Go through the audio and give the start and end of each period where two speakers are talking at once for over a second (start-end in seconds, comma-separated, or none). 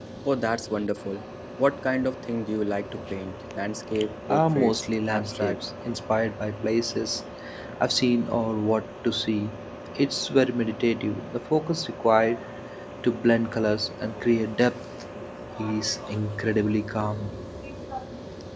4.3-5.6